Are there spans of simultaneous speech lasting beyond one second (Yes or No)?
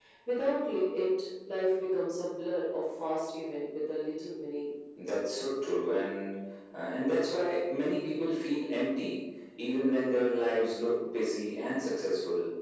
No